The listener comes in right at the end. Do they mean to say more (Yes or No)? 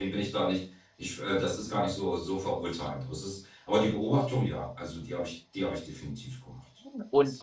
Yes